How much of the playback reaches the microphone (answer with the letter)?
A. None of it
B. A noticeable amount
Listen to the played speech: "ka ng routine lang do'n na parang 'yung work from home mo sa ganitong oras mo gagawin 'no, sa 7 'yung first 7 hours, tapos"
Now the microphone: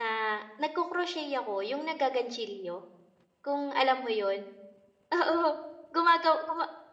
A